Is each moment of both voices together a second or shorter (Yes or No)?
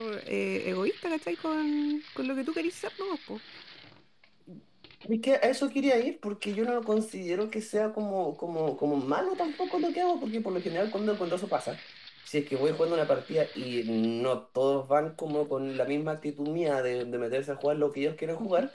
Yes